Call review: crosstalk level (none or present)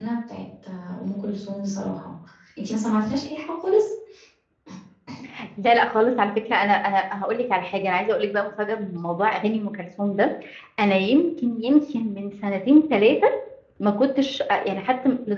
none